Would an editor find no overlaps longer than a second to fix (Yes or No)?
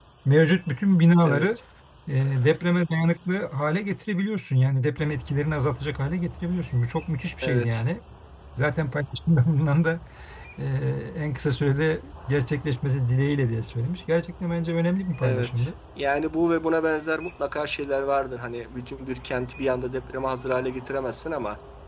Yes